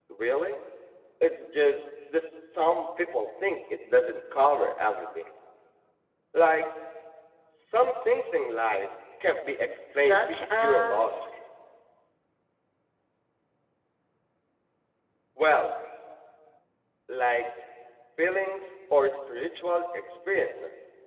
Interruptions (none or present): present